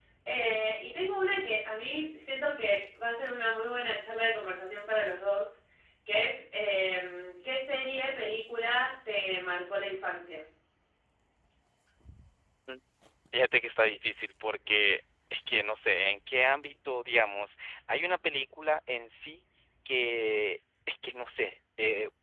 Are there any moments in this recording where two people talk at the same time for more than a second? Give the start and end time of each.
none

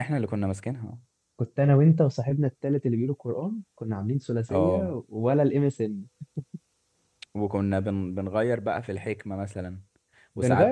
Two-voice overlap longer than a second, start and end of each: none

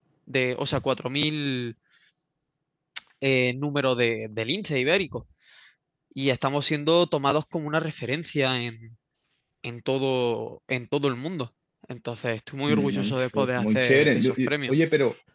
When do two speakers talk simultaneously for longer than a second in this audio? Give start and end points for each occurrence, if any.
12.7-14.7

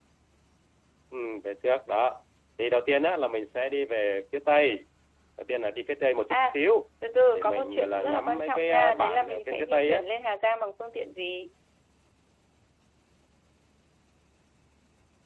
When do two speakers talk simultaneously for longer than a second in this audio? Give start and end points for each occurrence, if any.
7.3-10.0

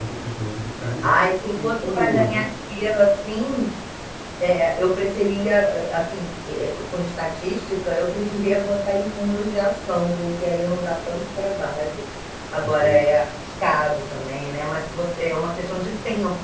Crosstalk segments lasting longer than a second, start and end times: 1.0-2.4

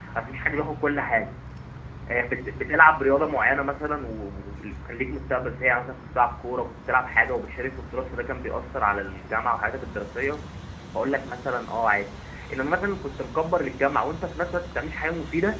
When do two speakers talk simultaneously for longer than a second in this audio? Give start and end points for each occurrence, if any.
none

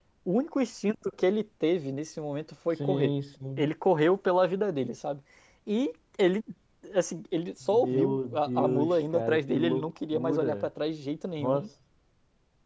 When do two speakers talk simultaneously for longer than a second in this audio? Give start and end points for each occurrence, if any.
7.6-10.7

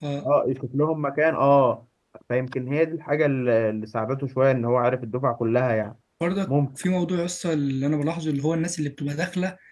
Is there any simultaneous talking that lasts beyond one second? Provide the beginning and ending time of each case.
none

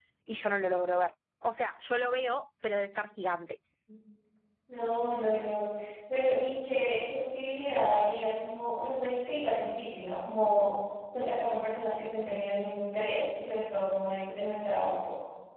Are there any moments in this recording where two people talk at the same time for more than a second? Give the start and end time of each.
none

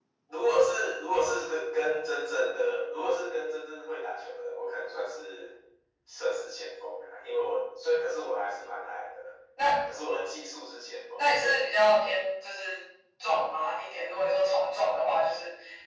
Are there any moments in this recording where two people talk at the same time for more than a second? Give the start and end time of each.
none

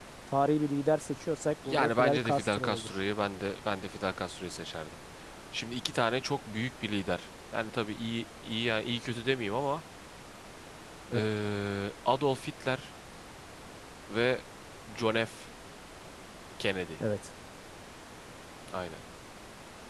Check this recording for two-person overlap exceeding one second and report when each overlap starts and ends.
1.6-3.0

